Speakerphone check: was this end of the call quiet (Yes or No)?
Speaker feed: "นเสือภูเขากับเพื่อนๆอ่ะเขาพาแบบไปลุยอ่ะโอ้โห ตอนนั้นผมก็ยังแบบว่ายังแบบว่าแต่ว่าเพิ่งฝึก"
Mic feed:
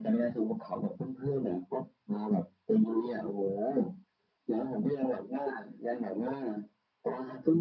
Yes